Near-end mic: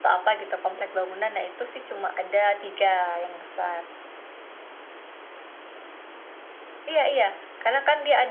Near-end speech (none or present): present